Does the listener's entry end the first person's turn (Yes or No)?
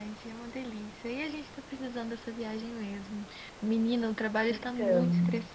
No